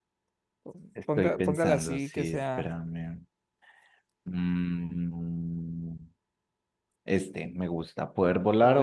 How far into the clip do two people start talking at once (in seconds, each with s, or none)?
1.1 s